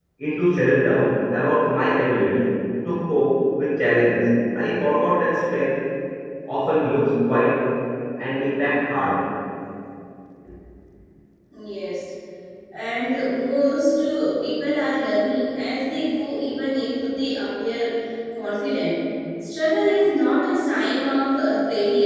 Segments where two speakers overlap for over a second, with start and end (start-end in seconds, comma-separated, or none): none